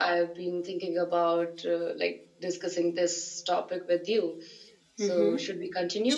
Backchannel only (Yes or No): No